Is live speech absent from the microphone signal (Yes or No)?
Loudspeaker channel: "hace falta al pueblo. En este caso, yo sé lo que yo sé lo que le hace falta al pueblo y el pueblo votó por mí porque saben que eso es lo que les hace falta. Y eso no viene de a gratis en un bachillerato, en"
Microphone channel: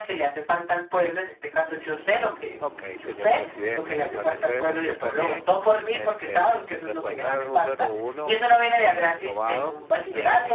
No